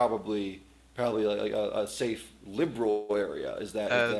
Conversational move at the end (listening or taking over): taking over